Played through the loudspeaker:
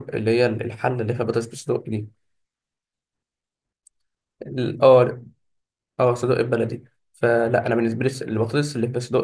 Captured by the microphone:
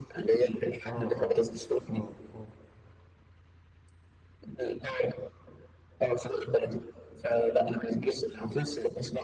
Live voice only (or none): اه اه اه اه